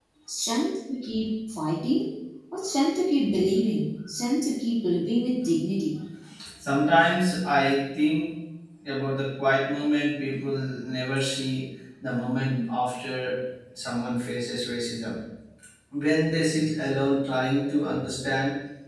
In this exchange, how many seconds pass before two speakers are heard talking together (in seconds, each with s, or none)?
none